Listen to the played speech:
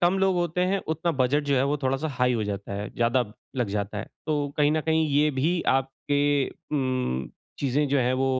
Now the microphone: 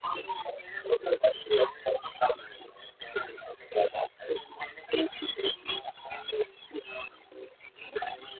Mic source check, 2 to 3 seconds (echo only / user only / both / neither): echo only